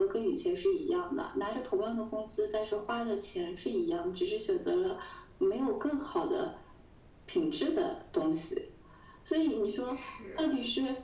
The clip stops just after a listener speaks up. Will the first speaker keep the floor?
Yes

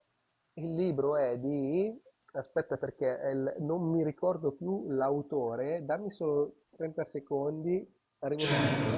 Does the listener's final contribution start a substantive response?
Yes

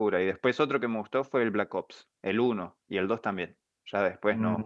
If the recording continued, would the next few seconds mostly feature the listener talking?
Yes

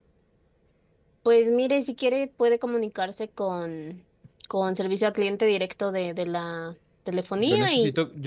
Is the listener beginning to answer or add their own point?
Yes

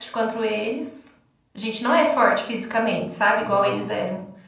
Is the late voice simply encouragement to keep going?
Yes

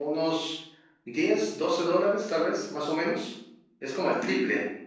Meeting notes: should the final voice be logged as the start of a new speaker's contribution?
Yes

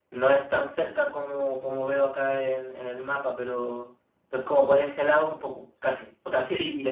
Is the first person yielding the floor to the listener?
Yes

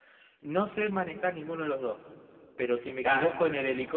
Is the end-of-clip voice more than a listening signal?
No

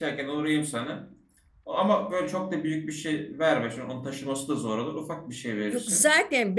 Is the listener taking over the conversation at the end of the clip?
Yes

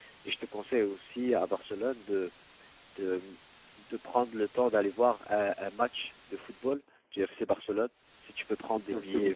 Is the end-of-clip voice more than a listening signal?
Yes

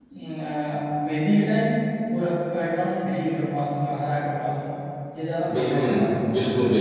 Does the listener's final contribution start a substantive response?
Yes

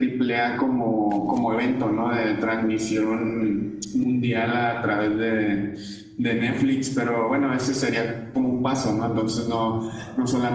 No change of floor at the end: Yes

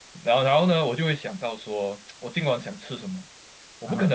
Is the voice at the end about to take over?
No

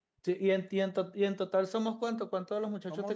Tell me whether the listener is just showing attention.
No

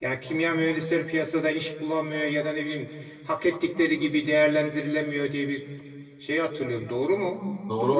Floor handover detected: Yes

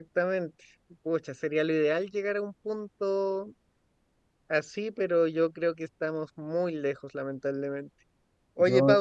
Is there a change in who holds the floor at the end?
No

